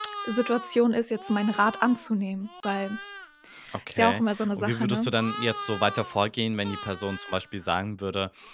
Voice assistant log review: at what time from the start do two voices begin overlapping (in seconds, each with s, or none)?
3.9 s